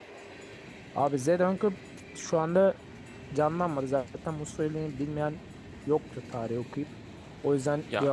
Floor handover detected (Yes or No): Yes